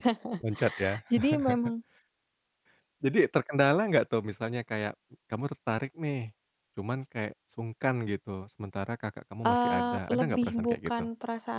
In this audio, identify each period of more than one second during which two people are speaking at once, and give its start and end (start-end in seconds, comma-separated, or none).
9.4-11.1